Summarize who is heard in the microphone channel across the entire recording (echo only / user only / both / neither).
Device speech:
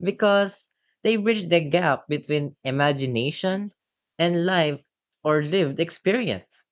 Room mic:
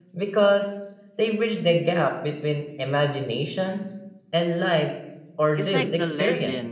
both